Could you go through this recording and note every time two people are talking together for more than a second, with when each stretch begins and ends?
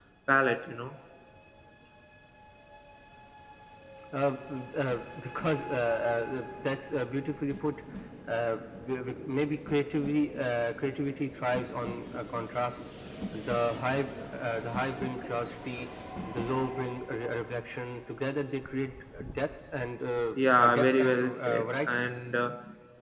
20.4-22.1

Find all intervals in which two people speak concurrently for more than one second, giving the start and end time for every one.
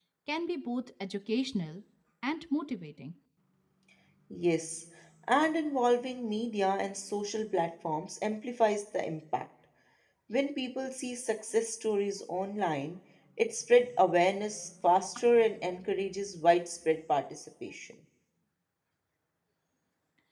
none

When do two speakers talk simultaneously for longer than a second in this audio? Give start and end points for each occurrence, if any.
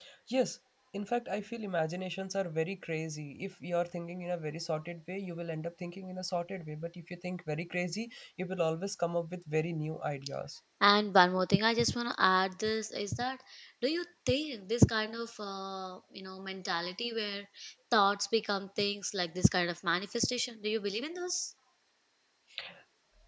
none

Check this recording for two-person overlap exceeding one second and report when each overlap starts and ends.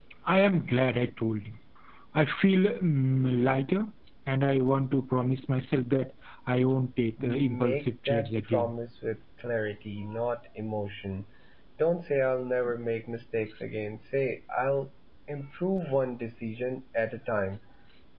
7.2-8.7

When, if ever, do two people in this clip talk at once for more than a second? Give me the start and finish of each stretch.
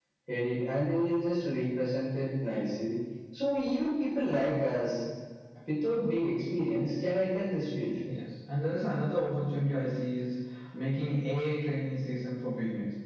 none

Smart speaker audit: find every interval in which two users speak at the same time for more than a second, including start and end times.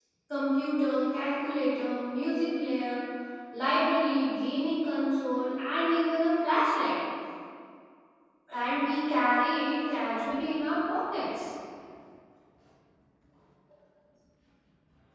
none

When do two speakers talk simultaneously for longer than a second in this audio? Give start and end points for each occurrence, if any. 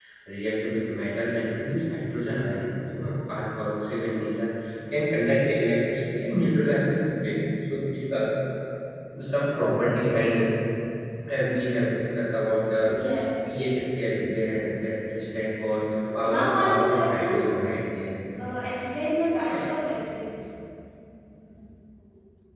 16.2-17.6

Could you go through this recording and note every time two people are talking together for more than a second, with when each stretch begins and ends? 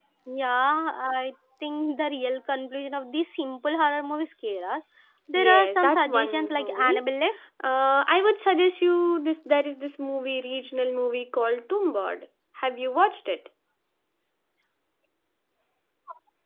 5.3-7.0

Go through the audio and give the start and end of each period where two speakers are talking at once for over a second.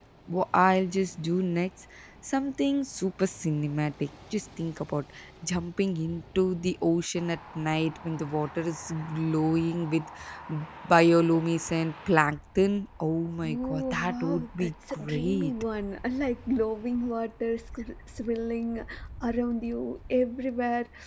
13.4-15.5

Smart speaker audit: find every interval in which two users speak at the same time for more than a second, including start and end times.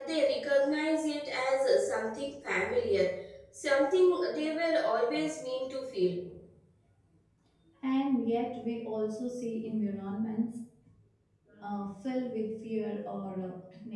none

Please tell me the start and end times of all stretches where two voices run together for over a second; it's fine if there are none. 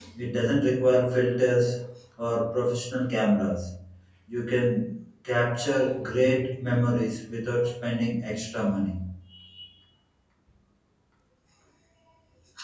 none

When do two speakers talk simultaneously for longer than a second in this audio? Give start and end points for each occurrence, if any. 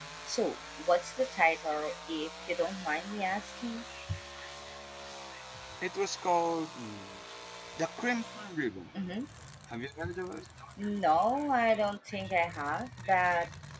none

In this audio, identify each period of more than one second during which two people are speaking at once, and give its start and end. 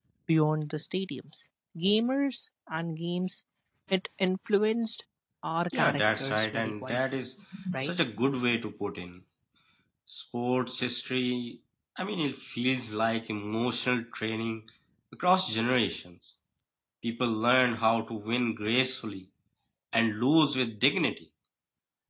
5.7-7.0

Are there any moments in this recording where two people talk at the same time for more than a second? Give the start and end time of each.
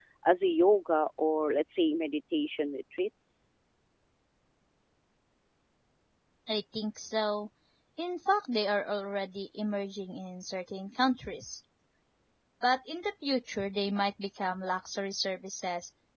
none

